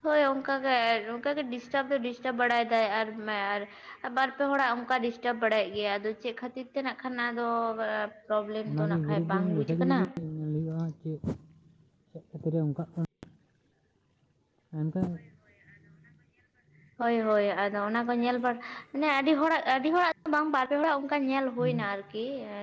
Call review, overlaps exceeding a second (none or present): present